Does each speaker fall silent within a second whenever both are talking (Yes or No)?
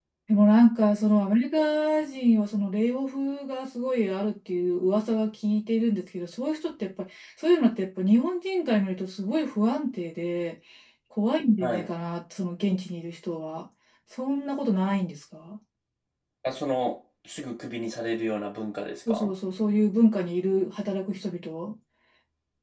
Yes